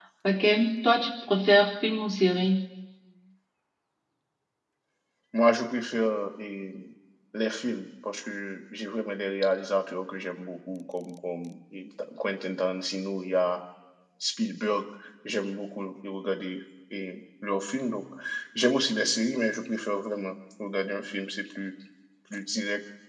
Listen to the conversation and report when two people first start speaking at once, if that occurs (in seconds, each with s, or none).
none